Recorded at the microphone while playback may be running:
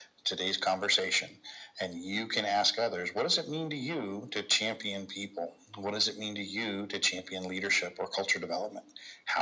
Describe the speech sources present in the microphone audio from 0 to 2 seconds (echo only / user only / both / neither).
echo only